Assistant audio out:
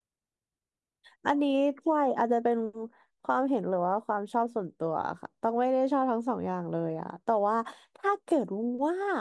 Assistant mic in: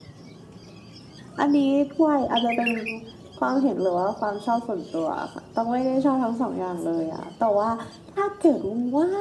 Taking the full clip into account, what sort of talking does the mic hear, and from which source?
echo only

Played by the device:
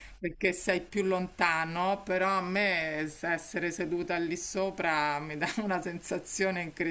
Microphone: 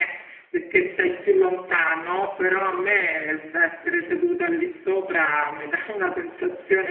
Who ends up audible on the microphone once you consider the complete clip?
echo only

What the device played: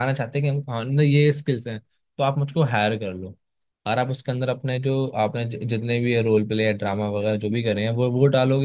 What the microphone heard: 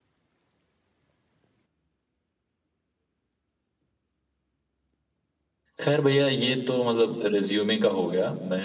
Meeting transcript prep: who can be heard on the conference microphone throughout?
user only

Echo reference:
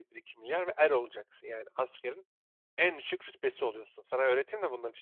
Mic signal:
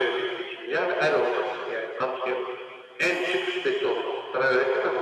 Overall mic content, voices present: echo only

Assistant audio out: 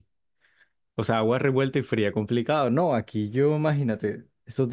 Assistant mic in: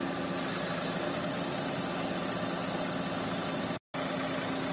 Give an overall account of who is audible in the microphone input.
neither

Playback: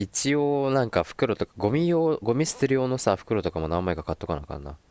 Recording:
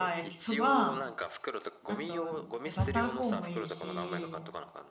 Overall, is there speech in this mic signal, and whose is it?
both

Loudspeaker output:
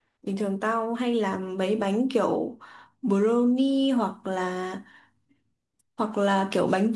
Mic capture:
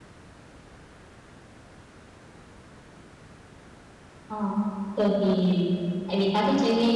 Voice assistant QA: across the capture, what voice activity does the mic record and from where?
user only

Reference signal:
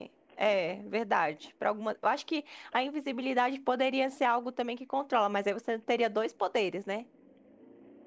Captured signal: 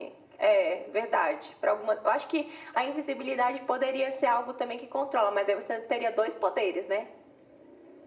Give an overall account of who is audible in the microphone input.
echo only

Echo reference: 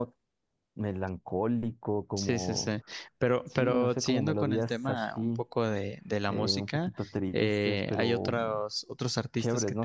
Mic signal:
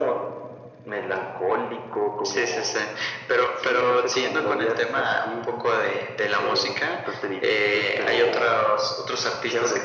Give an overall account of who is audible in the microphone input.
echo only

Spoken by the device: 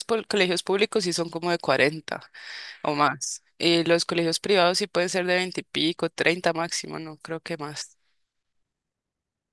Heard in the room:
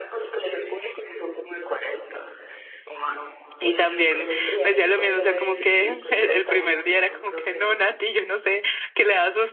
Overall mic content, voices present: both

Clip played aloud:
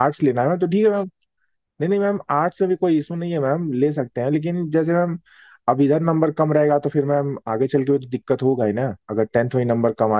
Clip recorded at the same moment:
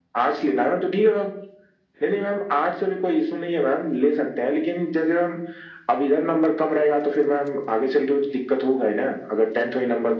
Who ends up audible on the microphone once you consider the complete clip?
echo only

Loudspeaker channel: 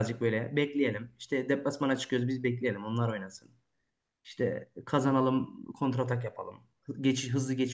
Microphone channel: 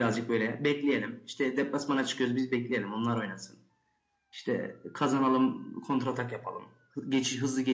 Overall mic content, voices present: echo only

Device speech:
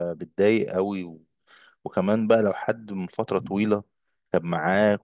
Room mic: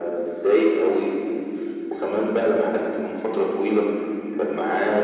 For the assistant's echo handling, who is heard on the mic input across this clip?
echo only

